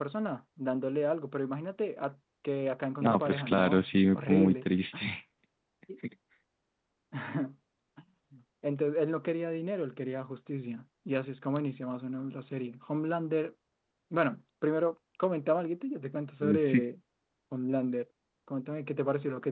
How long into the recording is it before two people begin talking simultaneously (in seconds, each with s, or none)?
3.0 s